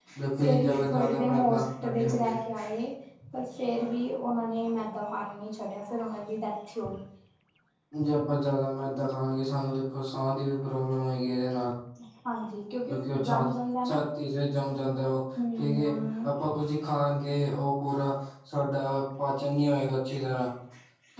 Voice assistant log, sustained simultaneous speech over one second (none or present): present